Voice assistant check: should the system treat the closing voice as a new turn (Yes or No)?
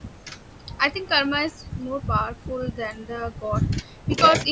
No